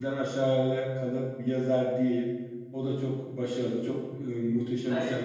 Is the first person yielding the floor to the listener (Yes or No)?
No